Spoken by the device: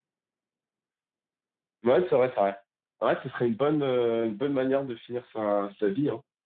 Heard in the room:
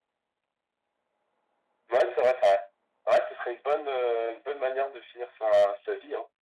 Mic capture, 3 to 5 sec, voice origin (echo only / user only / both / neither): echo only